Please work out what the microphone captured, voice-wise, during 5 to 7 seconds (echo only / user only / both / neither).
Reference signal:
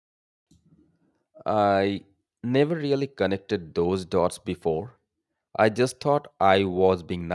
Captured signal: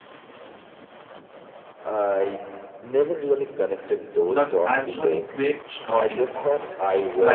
both